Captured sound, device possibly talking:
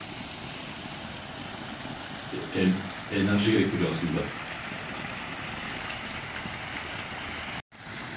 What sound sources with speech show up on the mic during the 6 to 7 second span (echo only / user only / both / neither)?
neither